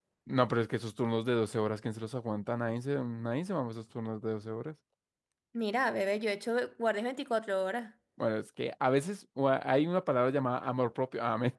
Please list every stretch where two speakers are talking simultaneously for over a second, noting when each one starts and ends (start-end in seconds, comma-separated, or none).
none